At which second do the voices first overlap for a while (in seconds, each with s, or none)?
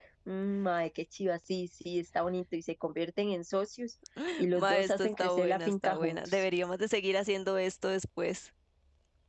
4.5 s